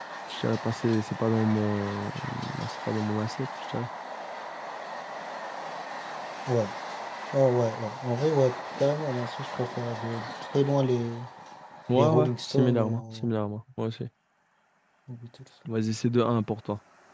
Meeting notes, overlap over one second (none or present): present